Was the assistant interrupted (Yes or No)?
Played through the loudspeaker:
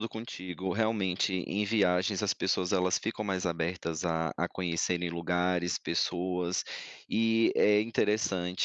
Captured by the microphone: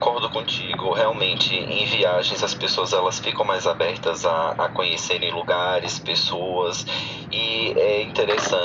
No